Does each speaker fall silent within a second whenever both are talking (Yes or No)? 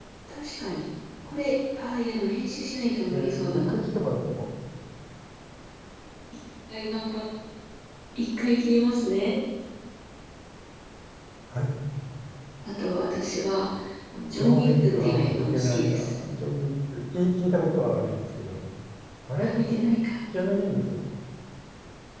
No